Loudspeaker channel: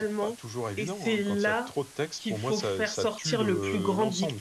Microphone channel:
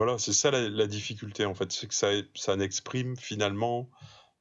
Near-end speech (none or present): present